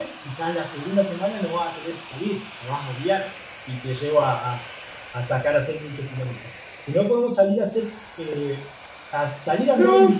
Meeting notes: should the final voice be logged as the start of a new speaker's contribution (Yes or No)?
Yes